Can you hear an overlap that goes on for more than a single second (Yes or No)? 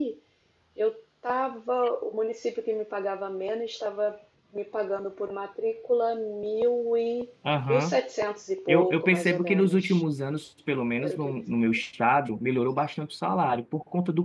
Yes